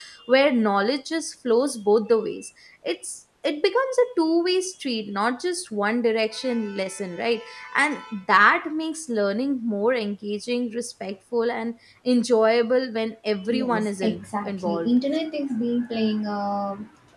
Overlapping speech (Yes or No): Yes